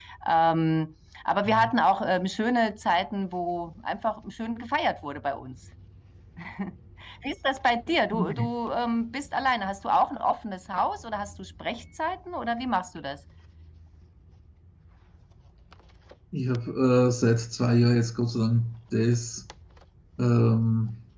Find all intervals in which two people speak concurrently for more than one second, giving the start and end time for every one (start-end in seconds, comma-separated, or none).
none